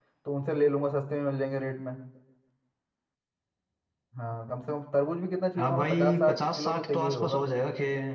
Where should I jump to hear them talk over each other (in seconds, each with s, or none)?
5.6 s